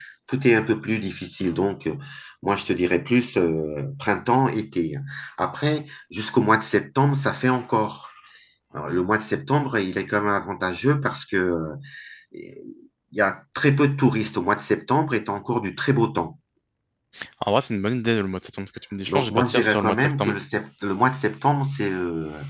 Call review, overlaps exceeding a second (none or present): present